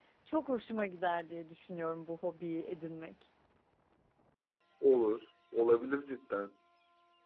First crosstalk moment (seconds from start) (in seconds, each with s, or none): none